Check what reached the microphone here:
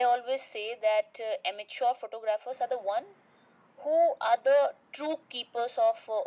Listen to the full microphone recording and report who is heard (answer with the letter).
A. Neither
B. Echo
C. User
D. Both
B